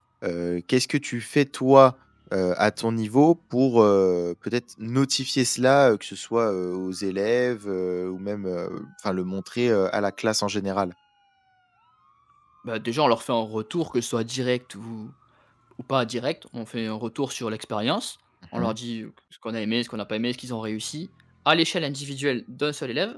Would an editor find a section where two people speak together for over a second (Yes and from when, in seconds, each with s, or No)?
No